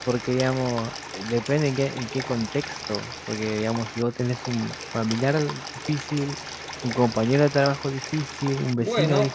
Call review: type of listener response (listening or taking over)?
taking over